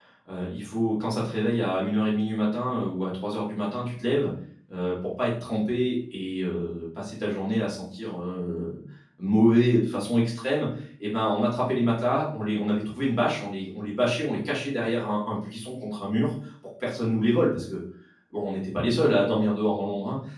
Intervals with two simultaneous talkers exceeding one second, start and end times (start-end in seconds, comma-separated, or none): none